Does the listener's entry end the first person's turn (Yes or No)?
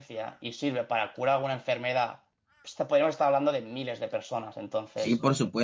Yes